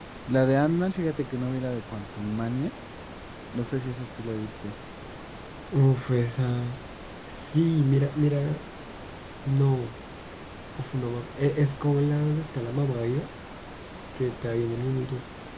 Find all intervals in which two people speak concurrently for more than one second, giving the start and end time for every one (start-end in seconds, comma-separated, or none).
none